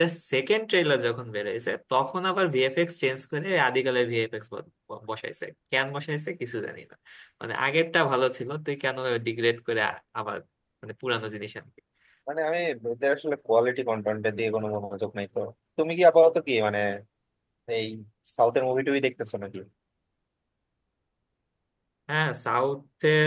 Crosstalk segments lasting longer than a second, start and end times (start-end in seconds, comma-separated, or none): none